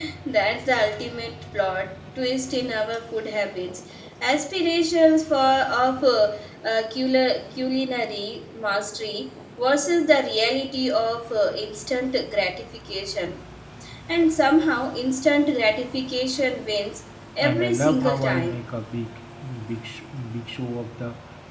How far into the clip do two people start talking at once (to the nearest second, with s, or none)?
17 s